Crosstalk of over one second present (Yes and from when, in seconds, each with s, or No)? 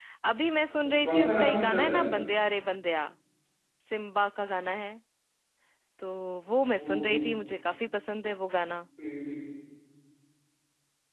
Yes, from 0.8 s